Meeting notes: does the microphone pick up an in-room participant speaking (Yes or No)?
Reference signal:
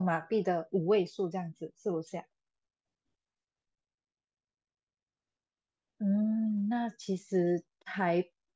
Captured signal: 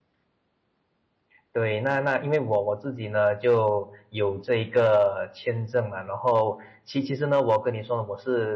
Yes